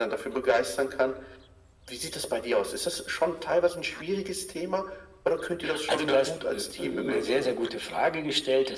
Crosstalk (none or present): present